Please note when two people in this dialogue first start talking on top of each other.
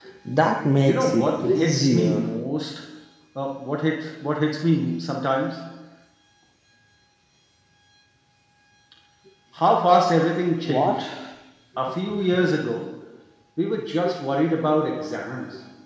0.8 s

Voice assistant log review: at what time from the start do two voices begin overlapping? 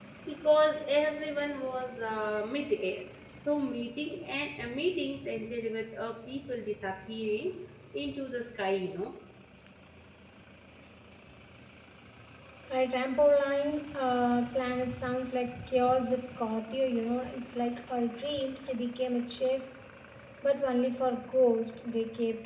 none

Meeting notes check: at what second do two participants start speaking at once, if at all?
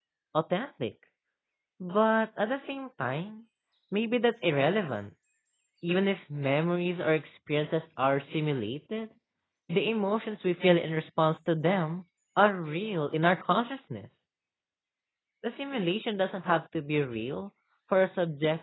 none

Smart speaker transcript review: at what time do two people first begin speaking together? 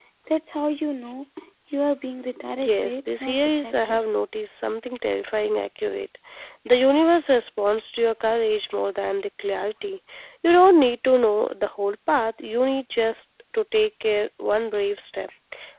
2.6 s

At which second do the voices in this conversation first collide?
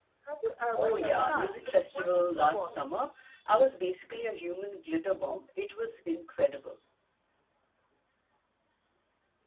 0.7 s

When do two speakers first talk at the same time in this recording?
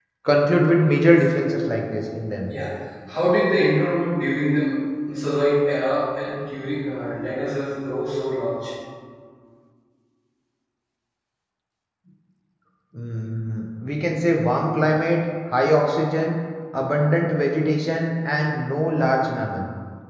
none

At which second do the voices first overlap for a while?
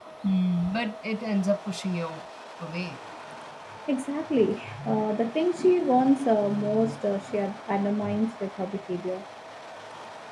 none

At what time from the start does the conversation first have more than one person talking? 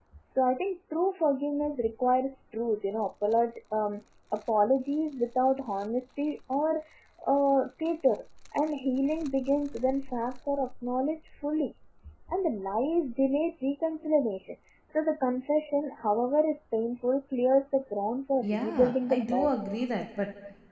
18.4 s

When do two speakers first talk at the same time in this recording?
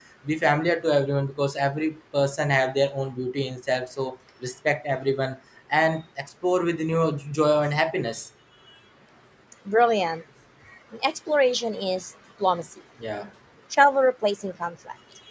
none

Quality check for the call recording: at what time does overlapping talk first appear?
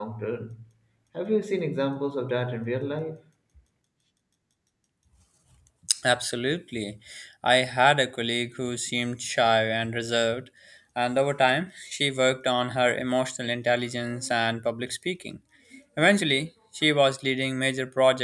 none

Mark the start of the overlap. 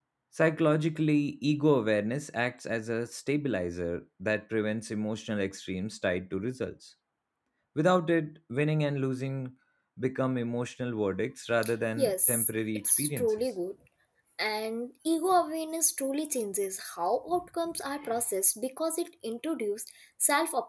12.0 s

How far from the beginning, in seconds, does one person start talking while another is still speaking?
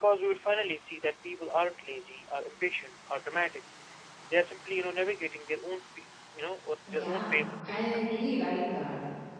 6.9 s

